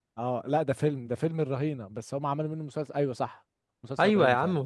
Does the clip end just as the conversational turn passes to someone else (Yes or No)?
Yes